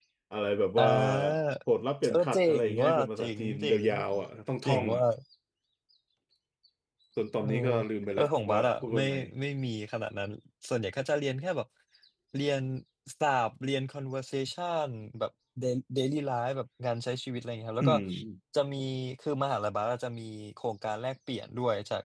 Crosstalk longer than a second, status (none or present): present